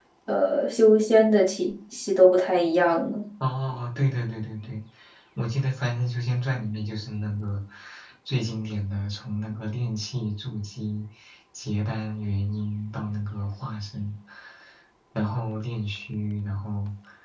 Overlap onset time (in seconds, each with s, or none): none